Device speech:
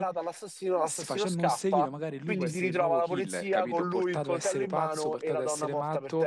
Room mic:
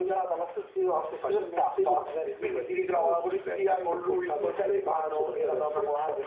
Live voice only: none

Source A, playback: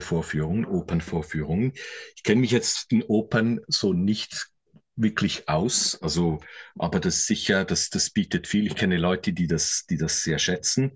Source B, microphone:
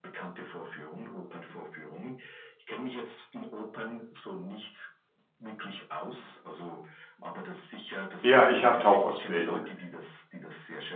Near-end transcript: Ja, ich habe Tauchausbildung.

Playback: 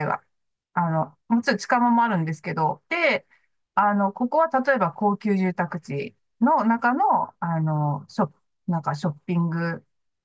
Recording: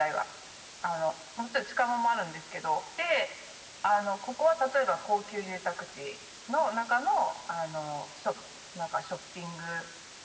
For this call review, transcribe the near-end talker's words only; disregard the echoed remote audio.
none

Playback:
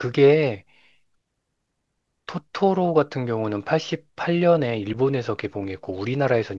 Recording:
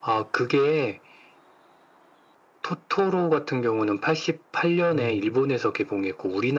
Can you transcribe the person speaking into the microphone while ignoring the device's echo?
음,

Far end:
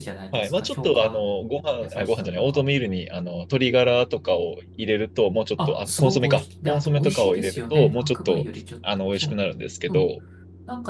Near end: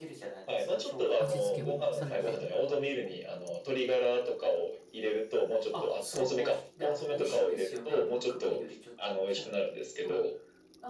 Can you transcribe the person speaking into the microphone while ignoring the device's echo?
味付けをされて。

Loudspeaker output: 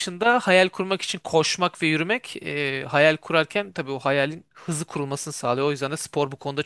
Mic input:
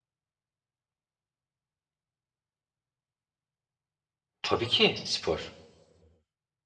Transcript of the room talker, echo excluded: tabii ki spor.

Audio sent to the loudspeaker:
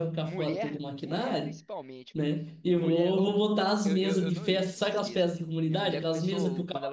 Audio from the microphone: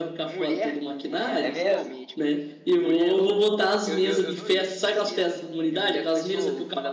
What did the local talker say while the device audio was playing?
é mesmo?

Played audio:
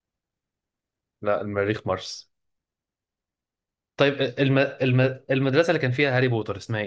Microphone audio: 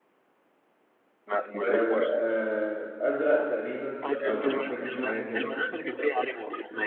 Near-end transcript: آه، آه، ازرق تقريبا او بنفسجي حاجه كده

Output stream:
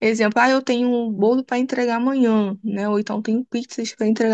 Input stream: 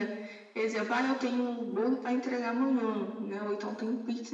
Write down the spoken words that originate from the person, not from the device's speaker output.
none

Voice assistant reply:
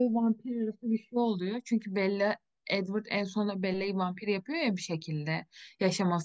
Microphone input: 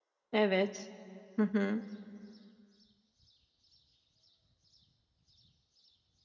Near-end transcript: Evet. Hı hı.

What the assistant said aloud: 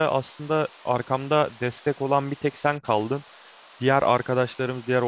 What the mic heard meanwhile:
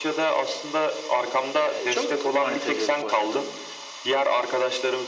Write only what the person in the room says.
E, çok manitacılık oynadım.

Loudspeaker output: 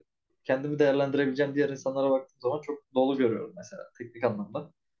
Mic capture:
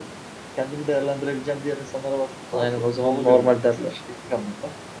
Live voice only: Aynen o zaman normal derler.

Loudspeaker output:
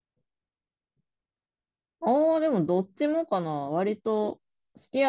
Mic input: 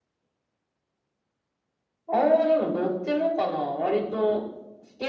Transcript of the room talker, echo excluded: none

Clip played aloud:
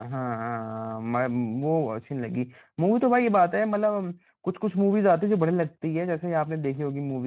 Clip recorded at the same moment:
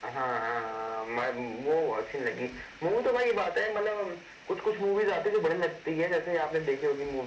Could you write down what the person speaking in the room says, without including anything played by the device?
none

